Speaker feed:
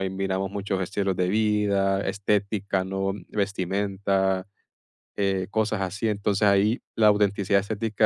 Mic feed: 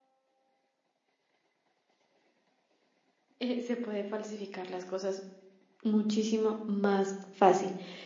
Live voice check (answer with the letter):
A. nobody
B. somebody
B